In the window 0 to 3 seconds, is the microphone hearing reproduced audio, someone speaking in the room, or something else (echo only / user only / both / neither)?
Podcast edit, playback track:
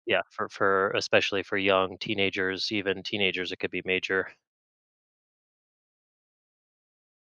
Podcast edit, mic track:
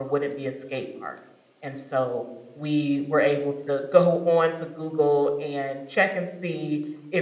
user only